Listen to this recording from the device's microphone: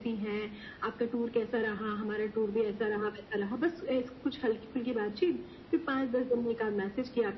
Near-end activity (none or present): none